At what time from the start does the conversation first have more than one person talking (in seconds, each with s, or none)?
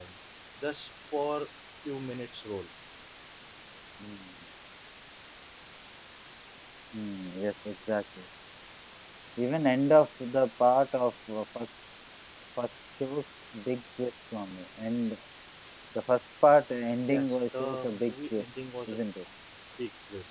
17.1 s